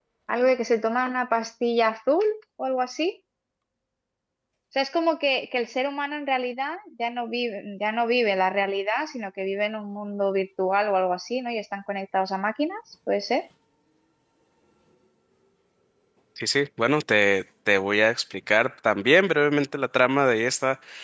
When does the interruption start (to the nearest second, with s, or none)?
none